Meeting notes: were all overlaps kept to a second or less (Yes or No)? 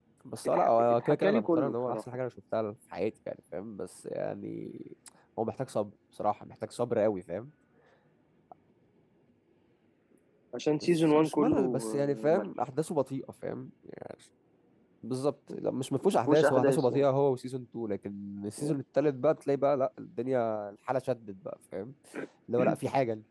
No